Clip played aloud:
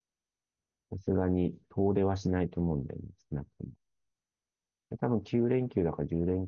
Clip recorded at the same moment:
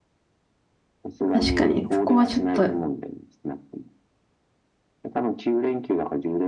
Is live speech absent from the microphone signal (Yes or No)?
No